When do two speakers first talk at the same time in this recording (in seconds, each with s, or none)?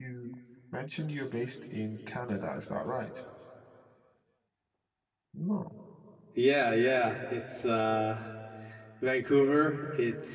none